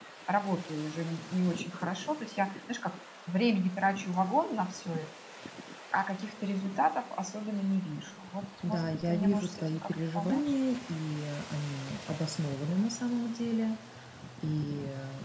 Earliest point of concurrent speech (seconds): 9 s

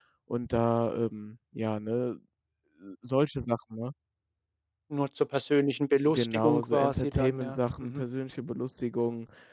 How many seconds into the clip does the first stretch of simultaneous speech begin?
6 s

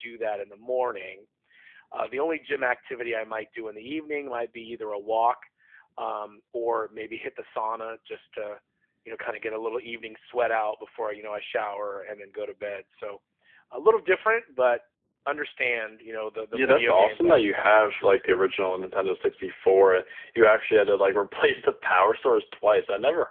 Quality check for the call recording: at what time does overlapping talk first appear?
17 s

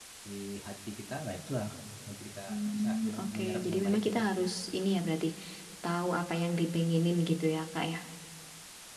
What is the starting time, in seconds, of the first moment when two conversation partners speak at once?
2 s

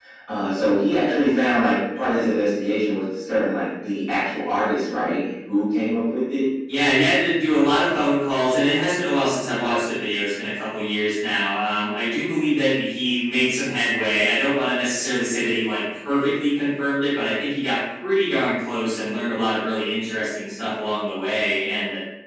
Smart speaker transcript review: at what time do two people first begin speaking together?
none

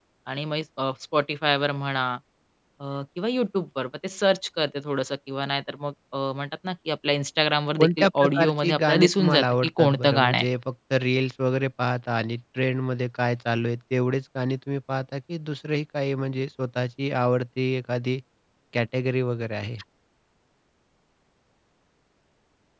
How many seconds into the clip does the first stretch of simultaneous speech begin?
8 s

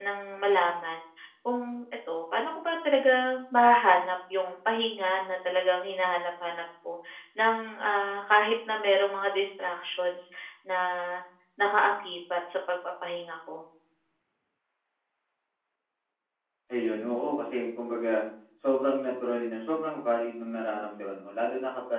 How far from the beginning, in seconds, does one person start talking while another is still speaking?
none

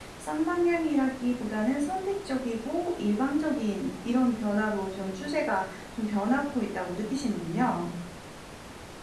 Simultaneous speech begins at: none

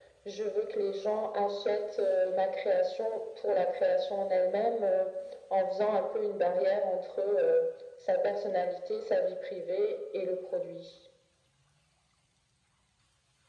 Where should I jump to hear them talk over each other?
none

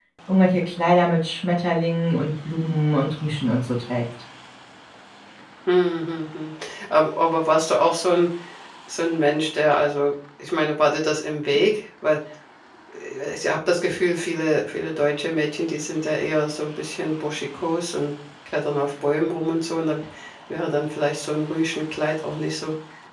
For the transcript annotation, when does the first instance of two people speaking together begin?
none

